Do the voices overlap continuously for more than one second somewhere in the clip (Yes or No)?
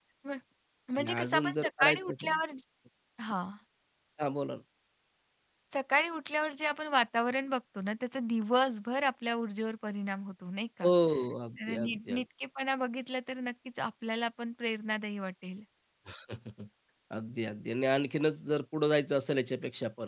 Yes